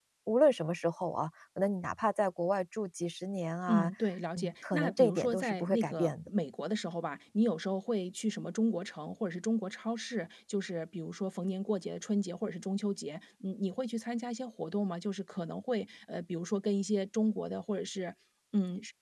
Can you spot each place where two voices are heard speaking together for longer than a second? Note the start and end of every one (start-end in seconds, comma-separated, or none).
4.3-6.3